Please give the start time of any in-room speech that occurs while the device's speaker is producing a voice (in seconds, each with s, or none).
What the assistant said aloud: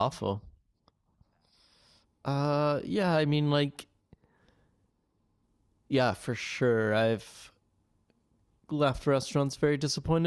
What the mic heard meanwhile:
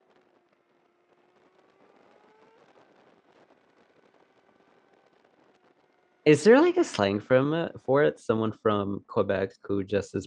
6.2 s